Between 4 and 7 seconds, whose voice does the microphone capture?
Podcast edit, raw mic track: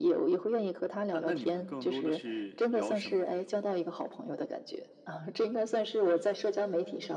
echo only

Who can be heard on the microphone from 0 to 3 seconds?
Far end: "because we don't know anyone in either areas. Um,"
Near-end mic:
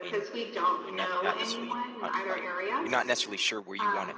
both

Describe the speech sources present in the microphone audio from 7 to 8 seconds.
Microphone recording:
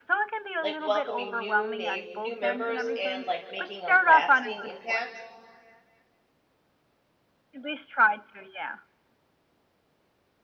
echo only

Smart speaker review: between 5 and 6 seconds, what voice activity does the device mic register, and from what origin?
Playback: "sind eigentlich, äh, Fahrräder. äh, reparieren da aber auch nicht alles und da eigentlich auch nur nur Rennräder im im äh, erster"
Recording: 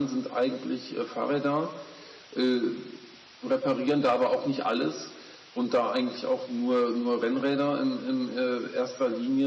echo only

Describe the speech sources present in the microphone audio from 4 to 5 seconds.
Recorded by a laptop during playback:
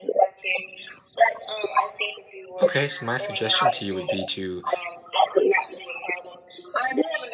both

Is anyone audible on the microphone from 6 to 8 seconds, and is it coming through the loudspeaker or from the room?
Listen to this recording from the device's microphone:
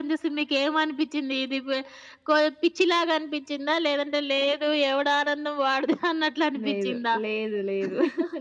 both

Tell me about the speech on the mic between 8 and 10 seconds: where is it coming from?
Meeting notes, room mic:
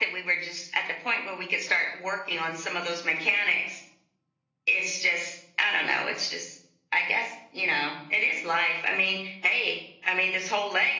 echo only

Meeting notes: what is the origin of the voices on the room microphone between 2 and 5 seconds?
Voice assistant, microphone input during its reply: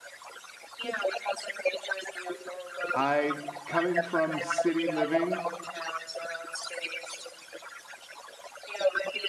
both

